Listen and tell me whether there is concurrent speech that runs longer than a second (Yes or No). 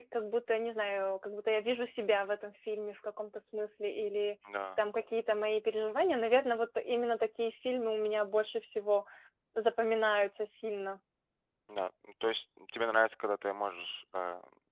No